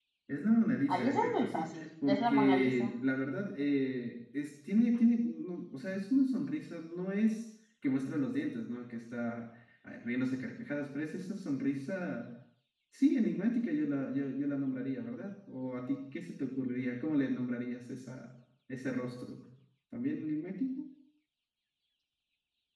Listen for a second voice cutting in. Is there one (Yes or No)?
Yes